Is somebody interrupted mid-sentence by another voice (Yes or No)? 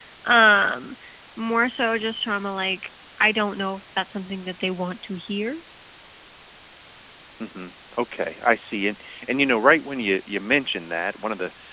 No